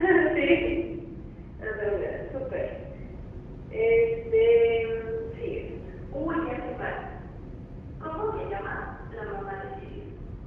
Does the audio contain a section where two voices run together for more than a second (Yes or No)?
No